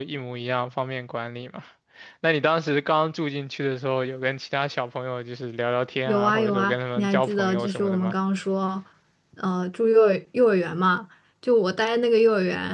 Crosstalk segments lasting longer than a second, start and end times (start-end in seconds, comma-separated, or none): 6.1-8.1